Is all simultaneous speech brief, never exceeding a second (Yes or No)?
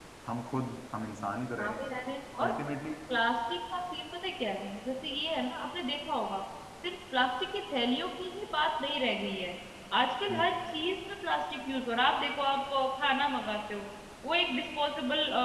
Yes